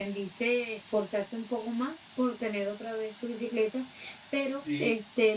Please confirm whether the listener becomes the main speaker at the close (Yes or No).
Yes